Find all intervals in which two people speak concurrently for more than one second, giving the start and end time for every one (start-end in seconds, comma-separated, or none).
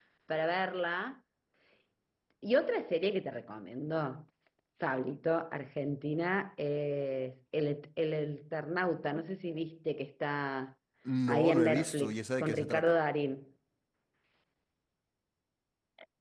11.3-12.9